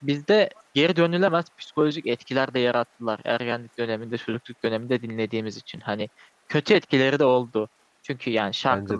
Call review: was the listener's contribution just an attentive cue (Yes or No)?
Yes